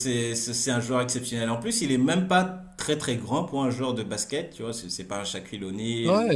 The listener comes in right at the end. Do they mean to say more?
Yes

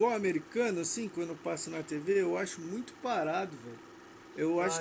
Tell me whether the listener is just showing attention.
No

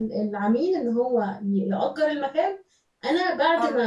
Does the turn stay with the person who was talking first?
Yes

